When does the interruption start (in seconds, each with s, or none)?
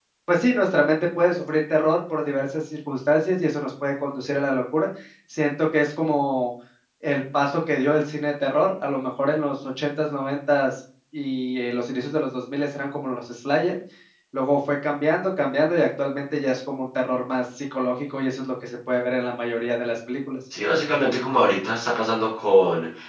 none